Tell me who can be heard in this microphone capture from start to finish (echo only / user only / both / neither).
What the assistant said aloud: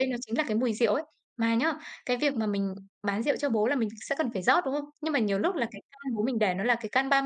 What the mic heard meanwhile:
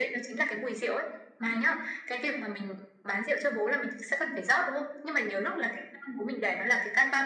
echo only